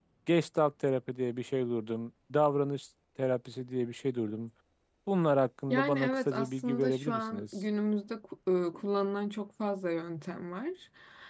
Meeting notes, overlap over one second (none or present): present